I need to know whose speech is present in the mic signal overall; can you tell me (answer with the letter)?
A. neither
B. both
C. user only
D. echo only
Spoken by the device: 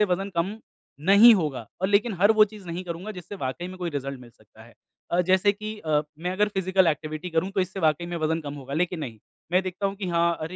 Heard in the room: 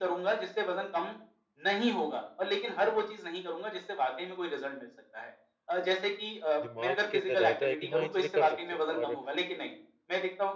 B